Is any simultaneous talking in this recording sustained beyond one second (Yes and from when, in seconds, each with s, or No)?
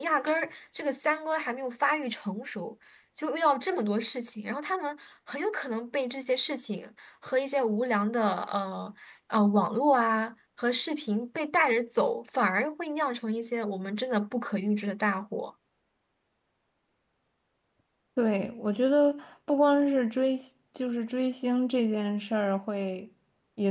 No